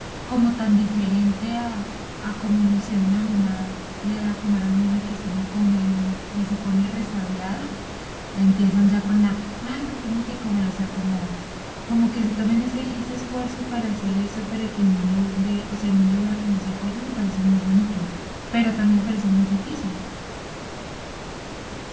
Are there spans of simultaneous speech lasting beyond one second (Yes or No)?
No